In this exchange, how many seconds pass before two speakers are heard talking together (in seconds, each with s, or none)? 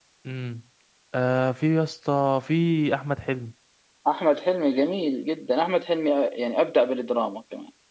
none